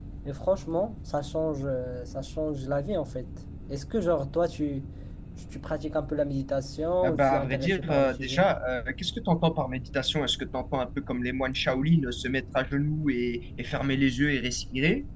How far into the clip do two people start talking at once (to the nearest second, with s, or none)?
7 s